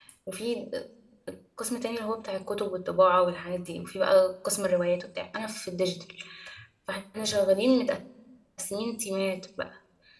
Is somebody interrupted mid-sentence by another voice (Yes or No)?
No